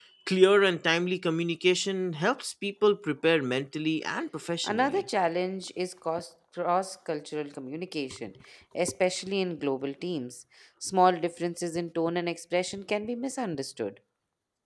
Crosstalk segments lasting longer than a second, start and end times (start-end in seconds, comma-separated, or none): none